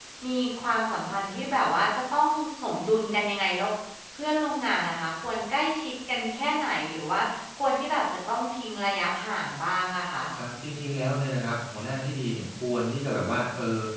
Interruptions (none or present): none